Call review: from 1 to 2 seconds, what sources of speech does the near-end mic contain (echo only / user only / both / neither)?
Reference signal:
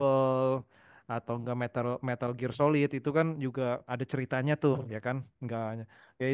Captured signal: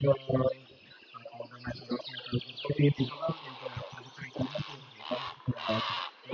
echo only